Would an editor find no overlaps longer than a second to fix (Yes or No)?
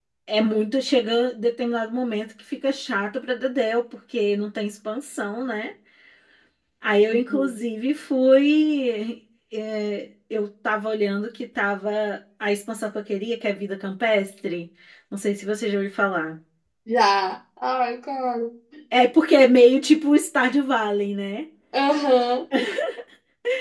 Yes